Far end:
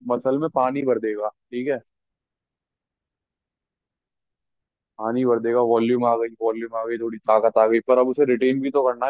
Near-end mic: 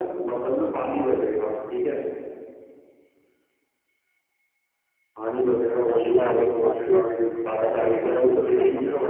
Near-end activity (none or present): present